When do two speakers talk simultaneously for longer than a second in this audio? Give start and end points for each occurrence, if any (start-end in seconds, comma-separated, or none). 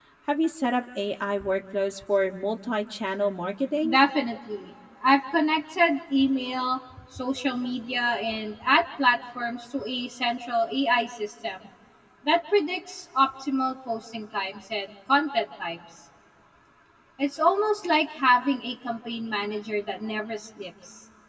none